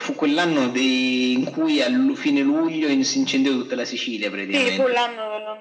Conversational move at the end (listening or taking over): taking over